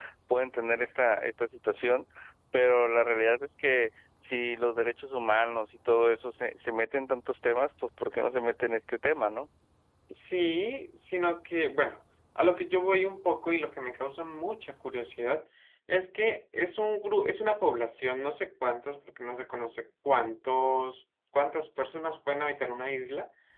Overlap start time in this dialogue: none

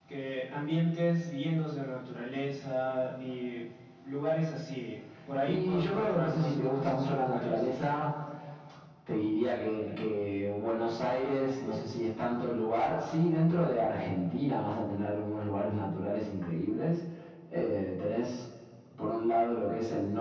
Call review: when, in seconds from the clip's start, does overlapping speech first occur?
5.4 s

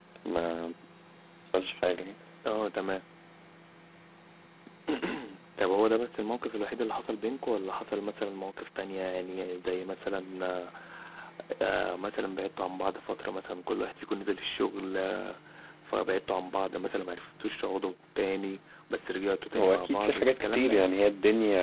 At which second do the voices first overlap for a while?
19.5 s

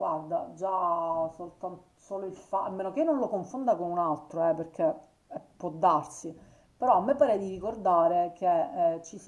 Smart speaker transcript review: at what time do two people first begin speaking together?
none

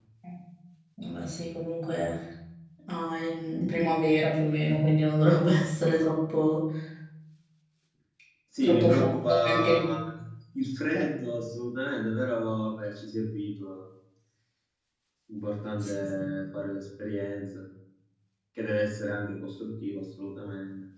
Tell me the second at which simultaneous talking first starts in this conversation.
8.6 s

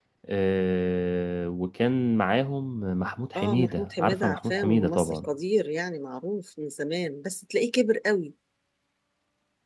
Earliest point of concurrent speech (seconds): 3.4 s

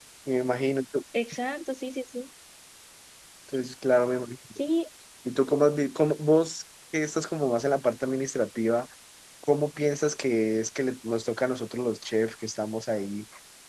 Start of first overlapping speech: none

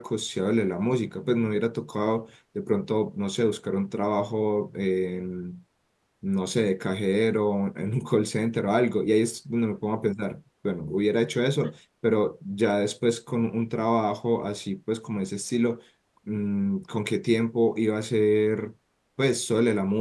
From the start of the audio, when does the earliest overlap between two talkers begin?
none

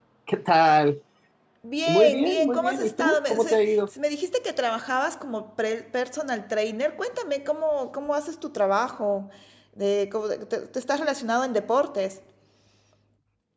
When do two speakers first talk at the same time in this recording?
1.9 s

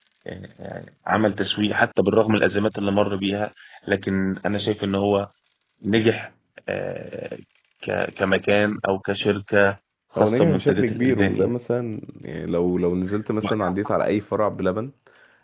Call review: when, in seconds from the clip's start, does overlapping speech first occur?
10.2 s

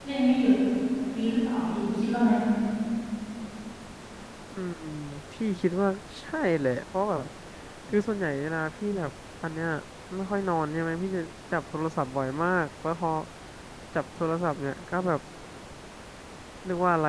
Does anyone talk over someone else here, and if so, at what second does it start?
none

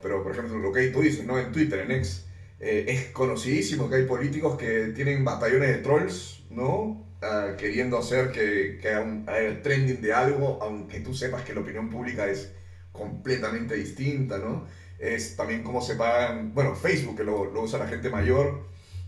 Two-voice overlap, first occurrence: none

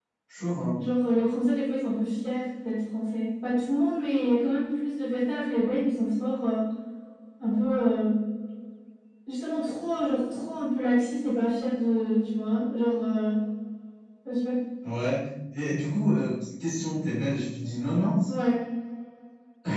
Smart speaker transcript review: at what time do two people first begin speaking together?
none

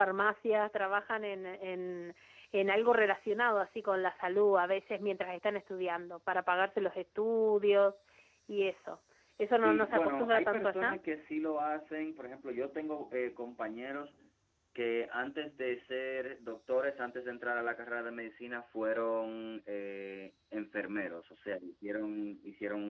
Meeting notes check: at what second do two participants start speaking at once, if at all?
9.6 s

